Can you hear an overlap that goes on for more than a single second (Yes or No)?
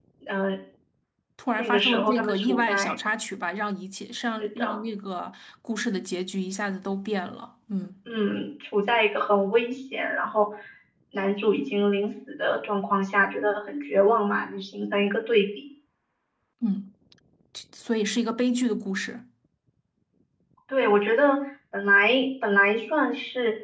Yes